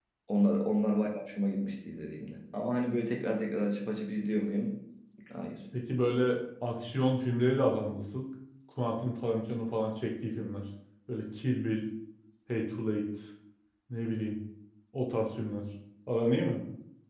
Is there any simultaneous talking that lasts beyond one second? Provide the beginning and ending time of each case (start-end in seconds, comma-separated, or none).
none